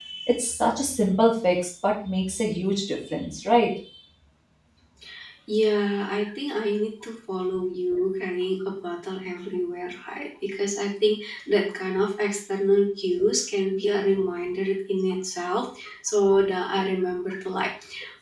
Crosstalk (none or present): none